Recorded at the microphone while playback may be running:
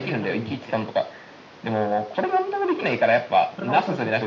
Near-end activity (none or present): none